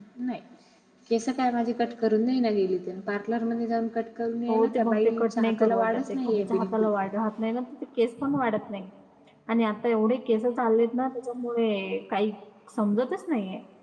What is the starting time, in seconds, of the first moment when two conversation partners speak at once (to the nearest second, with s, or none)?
4 s